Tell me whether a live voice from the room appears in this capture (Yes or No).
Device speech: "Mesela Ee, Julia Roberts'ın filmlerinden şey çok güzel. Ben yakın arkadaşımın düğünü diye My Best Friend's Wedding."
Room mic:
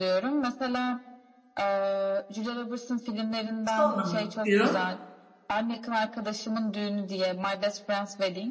Yes